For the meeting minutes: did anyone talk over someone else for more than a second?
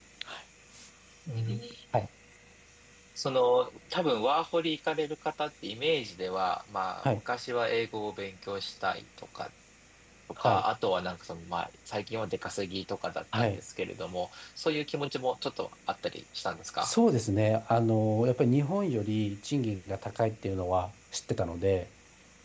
No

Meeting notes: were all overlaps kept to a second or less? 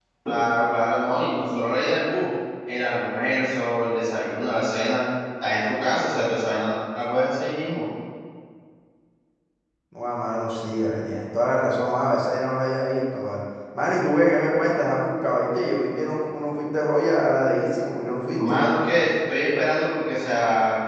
Yes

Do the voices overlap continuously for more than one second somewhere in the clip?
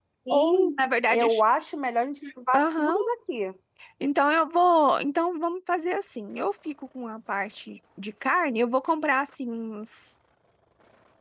No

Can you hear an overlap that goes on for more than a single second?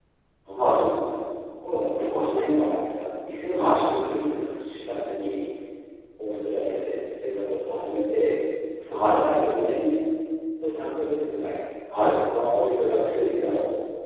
No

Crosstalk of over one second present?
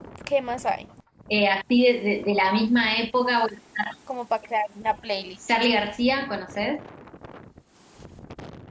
No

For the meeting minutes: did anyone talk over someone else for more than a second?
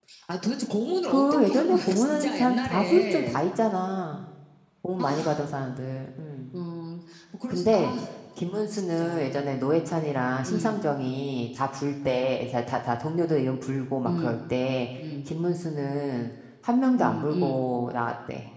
Yes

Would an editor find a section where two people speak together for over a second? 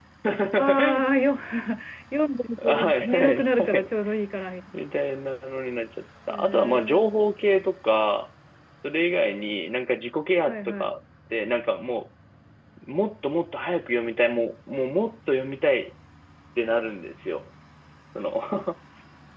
Yes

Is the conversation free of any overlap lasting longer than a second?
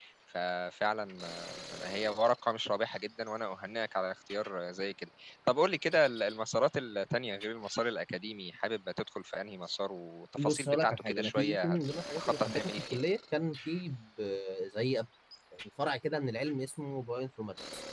No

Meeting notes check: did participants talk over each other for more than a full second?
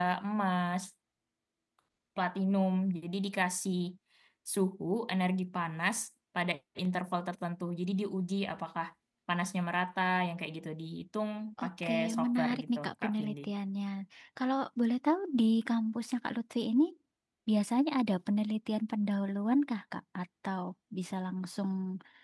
Yes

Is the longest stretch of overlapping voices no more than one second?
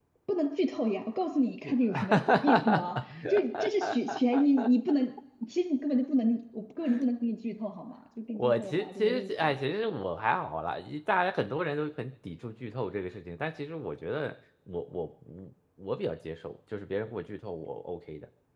No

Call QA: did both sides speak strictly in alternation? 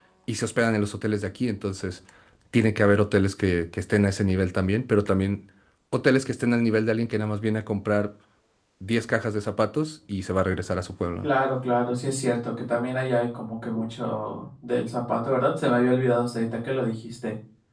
Yes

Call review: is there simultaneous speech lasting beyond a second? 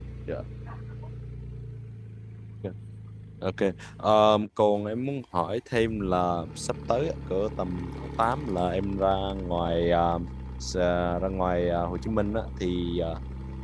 No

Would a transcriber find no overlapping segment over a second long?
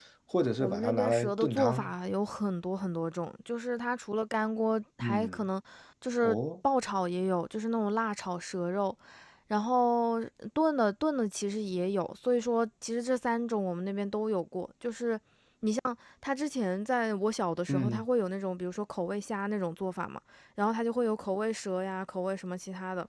No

